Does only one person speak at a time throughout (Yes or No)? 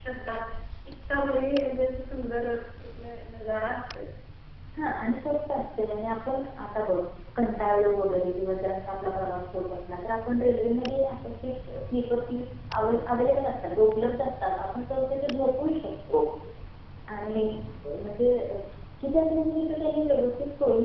Yes